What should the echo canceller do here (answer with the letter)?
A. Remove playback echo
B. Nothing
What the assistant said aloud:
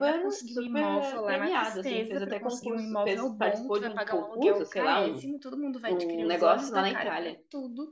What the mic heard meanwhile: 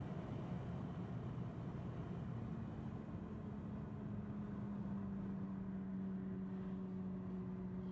B